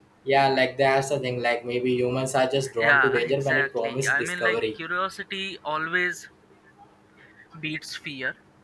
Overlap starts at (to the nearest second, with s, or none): 3 s